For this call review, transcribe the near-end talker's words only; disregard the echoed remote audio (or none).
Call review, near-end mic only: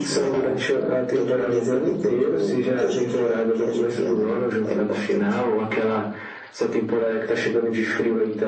none